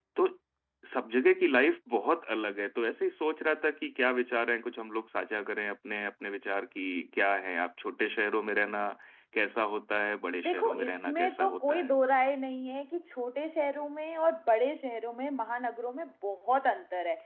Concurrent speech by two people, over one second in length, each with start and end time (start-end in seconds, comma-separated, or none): 10.4-12.0